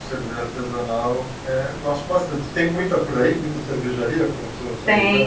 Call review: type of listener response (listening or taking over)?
taking over